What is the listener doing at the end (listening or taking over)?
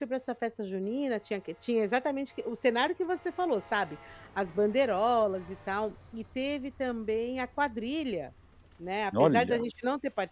listening